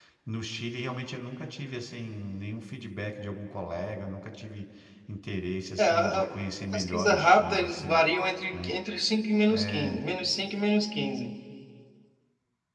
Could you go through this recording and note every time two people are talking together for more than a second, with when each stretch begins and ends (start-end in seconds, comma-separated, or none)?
6.7-8.0